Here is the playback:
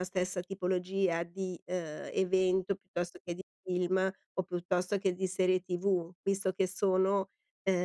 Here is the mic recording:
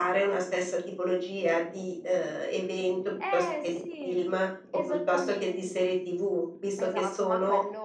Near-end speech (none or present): present